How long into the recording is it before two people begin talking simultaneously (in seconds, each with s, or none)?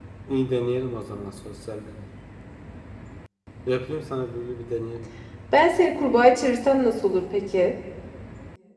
none